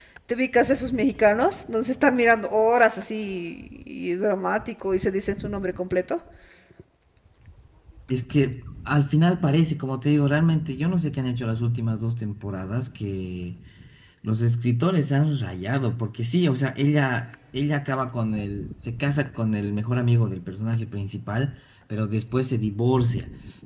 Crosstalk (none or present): none